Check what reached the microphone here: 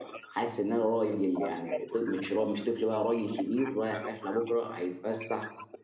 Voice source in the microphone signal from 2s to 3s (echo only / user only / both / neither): both